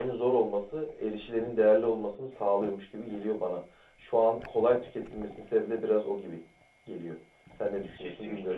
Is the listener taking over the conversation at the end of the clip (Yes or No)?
Yes